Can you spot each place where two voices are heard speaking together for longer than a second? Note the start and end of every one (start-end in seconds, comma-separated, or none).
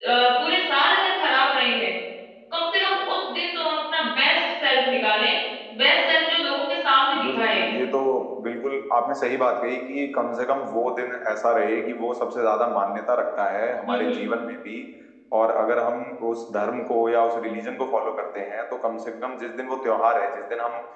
none